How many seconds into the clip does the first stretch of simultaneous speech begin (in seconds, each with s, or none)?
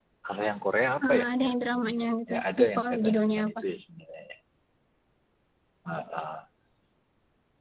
1.1 s